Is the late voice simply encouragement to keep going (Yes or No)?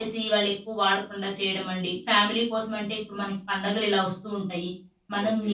Yes